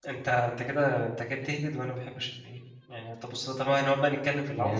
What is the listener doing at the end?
taking over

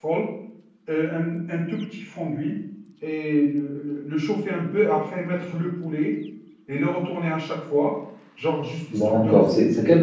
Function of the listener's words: taking over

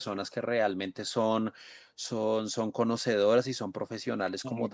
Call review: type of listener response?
listening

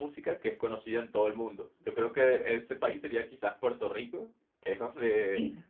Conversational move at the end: listening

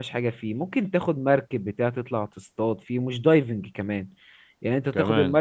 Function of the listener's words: listening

